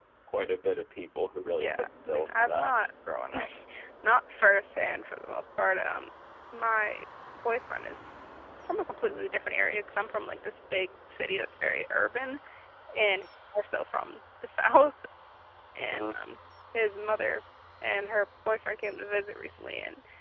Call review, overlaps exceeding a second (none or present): present